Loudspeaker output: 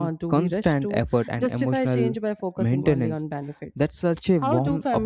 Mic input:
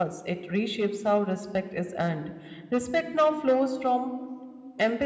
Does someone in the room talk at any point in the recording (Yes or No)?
Yes